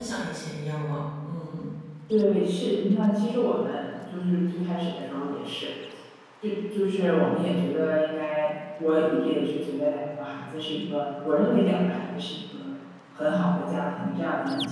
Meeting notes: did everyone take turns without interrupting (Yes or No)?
Yes